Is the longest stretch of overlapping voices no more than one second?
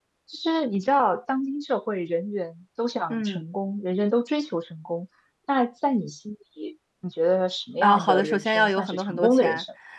No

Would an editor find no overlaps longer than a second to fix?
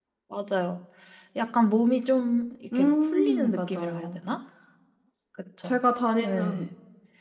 No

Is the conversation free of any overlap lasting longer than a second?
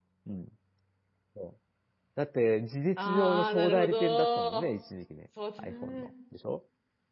No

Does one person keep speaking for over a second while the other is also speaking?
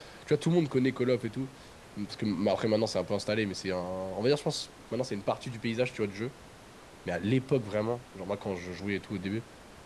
No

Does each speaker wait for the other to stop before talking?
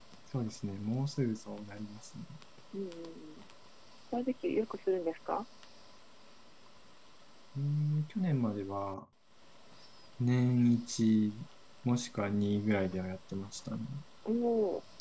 Yes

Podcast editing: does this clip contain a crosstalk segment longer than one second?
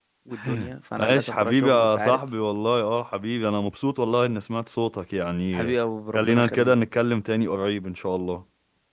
Yes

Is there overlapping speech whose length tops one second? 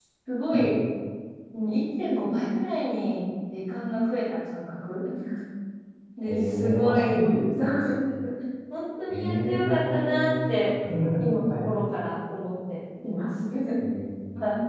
Yes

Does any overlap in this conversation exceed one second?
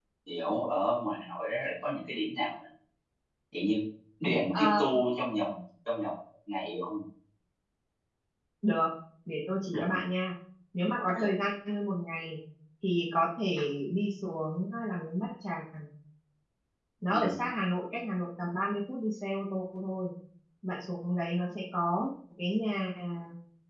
No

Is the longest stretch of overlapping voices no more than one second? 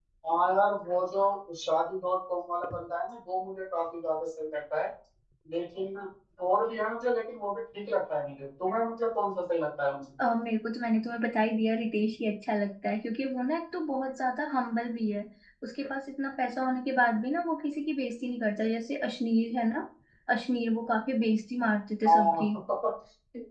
Yes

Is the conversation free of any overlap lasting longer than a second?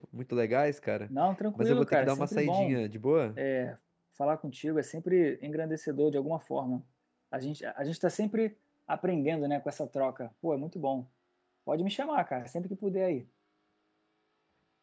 No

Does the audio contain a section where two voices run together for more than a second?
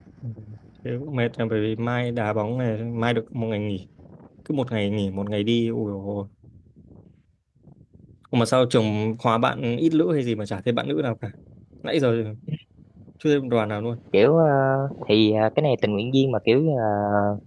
No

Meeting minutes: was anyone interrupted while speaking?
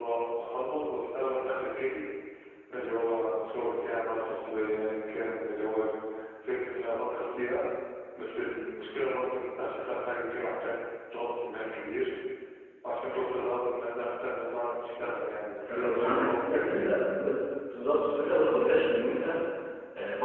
Yes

